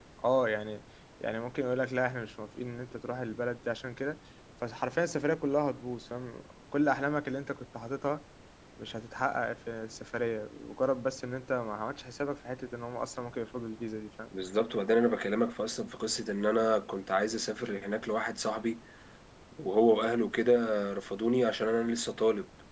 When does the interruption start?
none

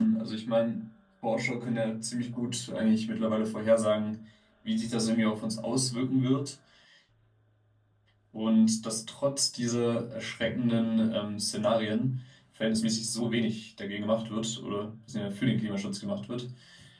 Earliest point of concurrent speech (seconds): none

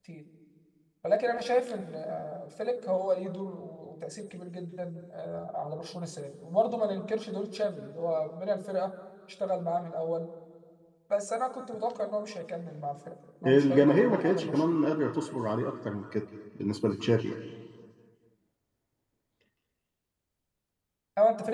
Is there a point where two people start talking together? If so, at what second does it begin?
13.4 s

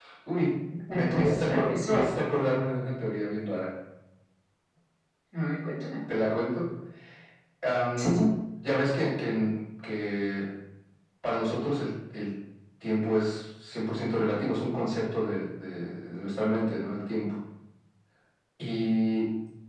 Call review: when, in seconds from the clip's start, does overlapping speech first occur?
0.9 s

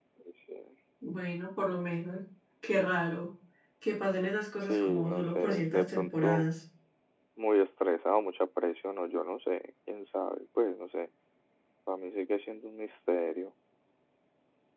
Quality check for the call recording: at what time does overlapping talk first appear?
4.7 s

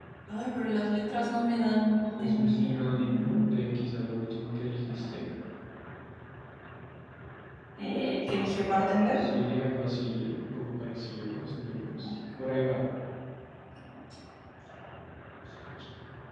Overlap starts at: 2.2 s

